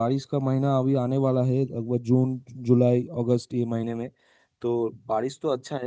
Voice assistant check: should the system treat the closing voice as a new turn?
No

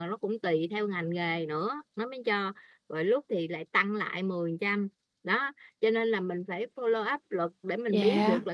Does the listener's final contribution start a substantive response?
No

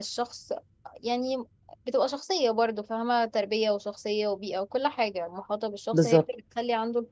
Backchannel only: Yes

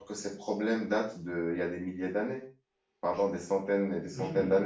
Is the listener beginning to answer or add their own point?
Yes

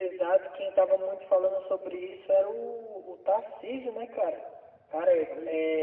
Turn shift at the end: No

